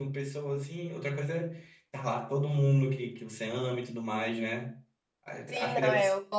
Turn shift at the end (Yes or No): Yes